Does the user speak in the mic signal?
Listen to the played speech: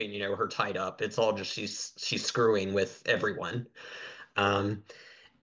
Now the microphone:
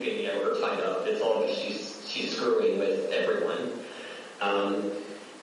No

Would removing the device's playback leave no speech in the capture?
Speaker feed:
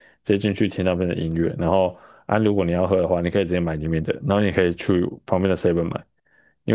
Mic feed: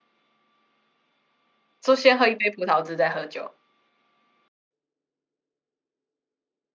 No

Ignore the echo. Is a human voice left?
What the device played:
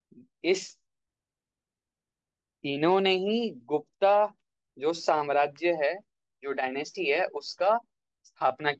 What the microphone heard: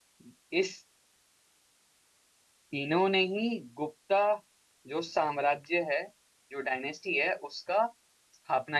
No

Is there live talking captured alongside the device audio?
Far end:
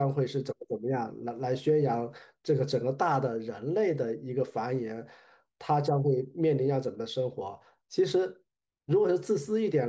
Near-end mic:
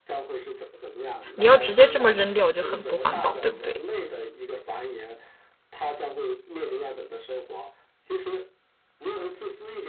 Yes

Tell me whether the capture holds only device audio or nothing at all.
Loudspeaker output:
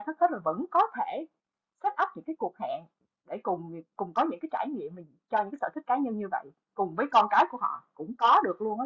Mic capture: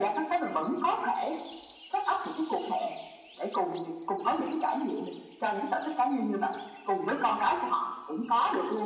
Yes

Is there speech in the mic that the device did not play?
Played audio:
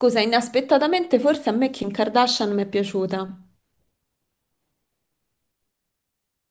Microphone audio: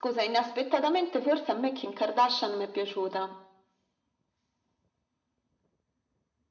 No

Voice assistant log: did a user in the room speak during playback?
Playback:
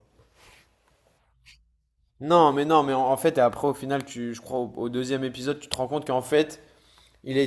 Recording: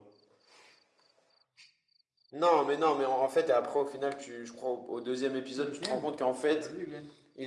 Yes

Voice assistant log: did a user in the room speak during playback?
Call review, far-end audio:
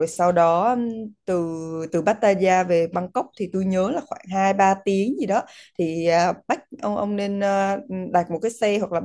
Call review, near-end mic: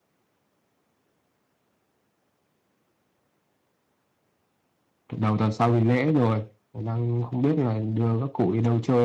Yes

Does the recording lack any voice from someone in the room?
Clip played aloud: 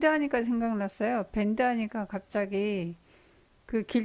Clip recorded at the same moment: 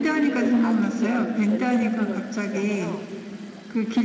No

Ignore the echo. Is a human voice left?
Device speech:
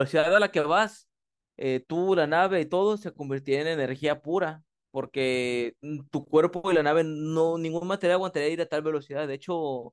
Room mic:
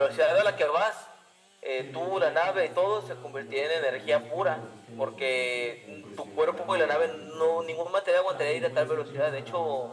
Yes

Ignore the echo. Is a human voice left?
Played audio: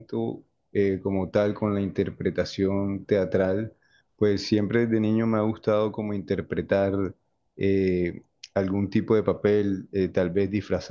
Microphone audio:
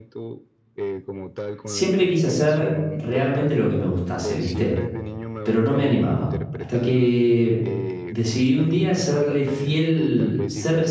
Yes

